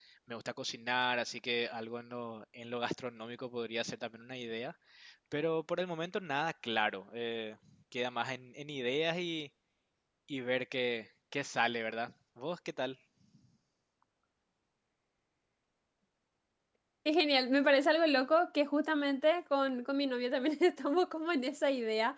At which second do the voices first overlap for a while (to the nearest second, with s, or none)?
none